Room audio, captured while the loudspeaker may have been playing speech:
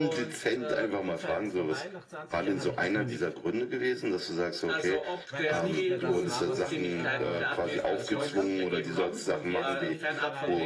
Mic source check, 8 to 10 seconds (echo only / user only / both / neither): both